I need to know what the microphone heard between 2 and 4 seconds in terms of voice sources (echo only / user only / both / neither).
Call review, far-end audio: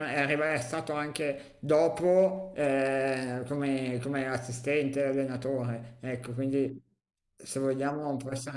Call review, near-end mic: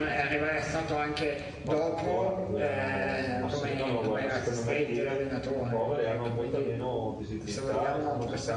both